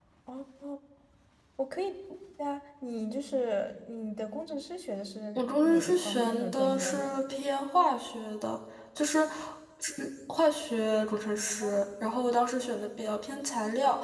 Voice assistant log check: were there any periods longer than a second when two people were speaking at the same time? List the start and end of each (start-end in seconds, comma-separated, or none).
5.4-7.2